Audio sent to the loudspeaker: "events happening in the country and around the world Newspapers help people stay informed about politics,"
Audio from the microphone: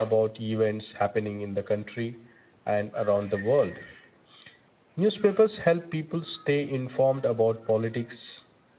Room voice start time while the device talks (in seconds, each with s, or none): none